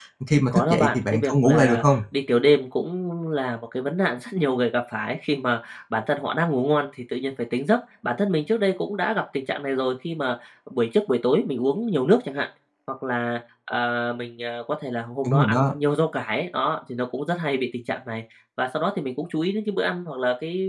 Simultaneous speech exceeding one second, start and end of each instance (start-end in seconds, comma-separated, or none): 0.5-1.8